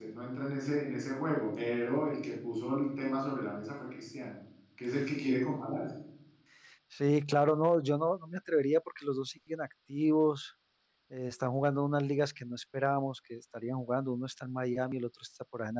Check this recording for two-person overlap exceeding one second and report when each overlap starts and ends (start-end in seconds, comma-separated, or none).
none